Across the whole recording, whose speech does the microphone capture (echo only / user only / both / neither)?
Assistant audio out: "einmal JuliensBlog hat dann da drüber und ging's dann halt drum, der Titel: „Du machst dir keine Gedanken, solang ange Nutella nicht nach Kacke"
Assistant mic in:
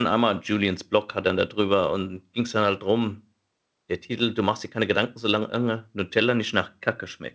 echo only